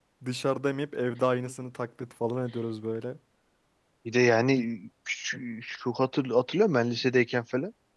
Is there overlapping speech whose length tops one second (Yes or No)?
No